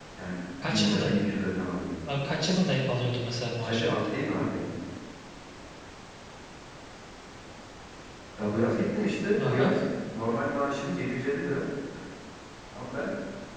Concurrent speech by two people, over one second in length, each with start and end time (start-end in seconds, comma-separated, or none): none